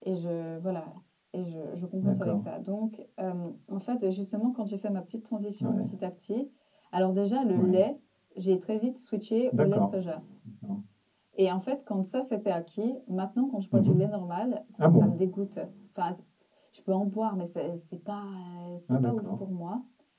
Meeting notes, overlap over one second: none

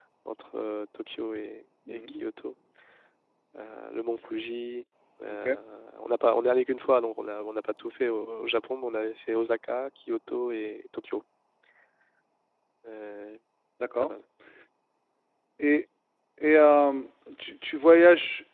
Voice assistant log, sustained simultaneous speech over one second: none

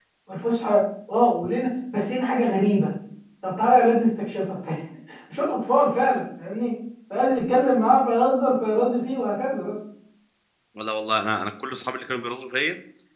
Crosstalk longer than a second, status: none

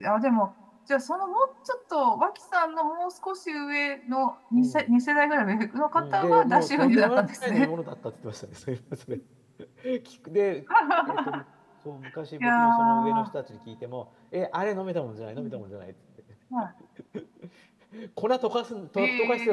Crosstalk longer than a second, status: present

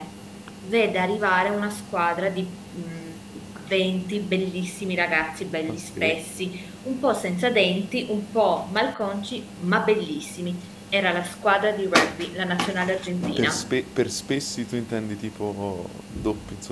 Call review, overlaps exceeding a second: none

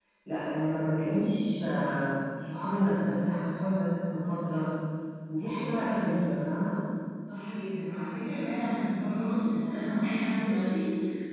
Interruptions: none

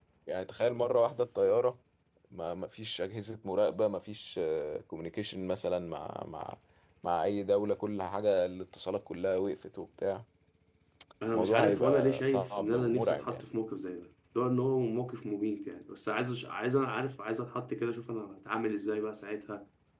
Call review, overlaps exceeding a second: present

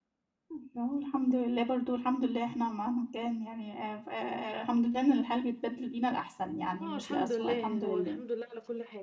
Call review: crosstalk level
present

